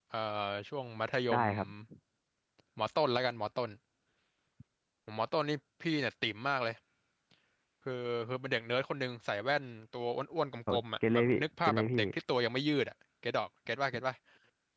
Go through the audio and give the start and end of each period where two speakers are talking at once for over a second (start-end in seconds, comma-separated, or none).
10.7-12.0